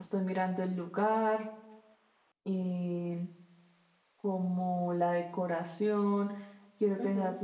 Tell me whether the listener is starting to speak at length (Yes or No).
No